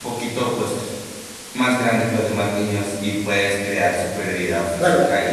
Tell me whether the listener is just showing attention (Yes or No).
No